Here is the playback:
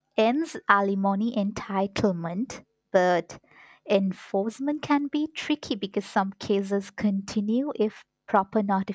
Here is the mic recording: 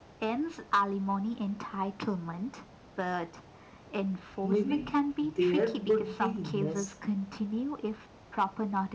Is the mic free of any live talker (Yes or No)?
No